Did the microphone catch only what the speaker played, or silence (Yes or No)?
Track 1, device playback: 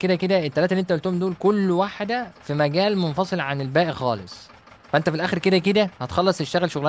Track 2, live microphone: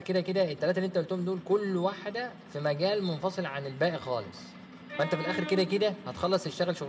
Yes